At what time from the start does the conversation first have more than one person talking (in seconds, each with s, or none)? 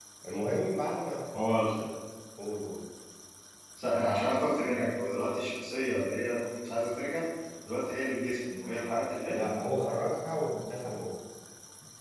none